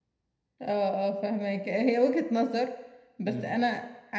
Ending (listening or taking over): listening